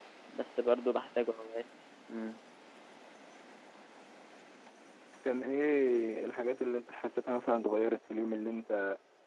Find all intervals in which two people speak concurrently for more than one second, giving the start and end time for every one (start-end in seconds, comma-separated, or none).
none